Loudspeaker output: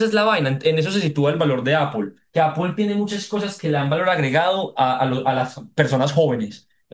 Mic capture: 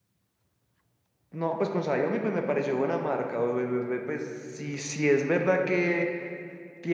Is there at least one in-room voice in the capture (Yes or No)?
Yes